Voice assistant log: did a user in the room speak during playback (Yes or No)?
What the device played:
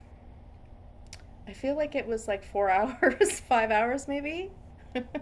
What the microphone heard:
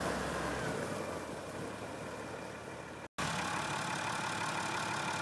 No